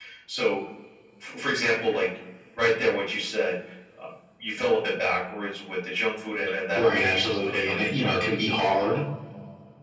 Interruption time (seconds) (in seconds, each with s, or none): 6.8 s